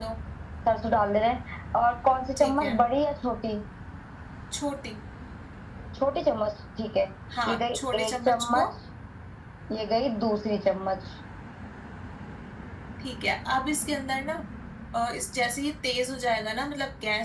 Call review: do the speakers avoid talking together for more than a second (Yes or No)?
No